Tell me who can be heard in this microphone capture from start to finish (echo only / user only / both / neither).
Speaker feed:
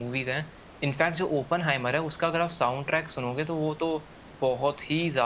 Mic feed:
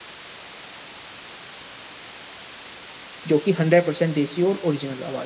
user only